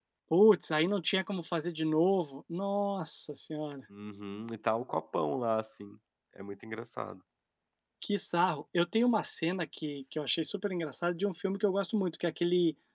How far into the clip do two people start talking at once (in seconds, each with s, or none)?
none